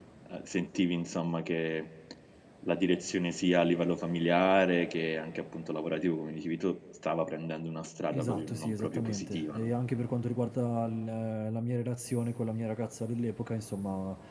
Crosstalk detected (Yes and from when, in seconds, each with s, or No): Yes, from 8.1 s